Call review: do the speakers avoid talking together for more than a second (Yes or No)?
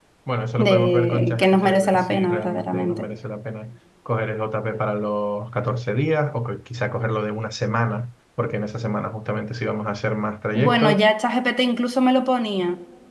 No